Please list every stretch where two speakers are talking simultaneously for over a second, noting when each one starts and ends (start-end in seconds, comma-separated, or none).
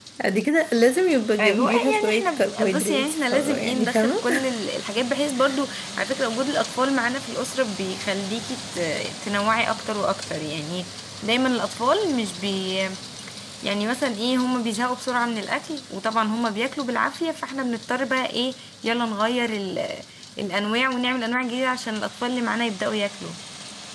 1.4-4.2